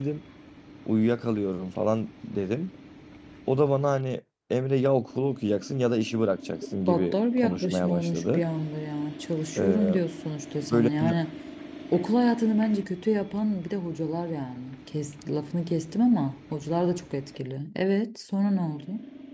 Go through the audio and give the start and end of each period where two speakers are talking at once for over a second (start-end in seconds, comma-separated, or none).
6.9-8.4